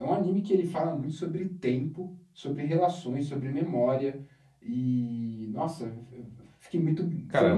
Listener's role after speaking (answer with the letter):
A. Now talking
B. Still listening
A